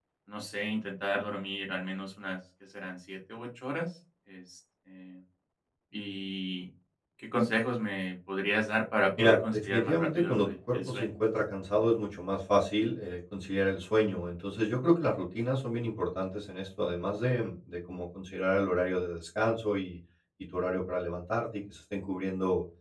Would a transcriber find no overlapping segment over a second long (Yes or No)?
No